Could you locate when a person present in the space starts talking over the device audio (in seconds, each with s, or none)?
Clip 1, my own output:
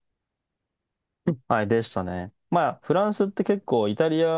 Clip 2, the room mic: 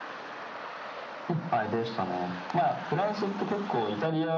none